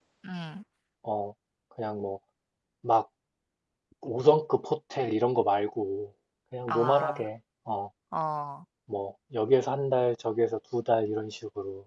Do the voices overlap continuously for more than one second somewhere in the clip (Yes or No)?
No